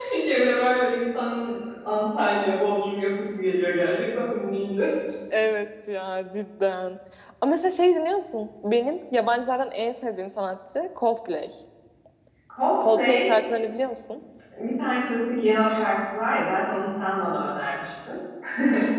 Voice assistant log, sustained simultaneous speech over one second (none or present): none